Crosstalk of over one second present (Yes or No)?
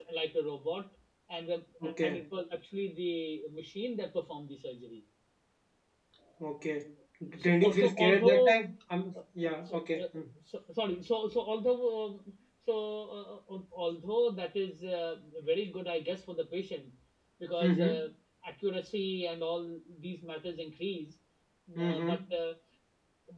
Yes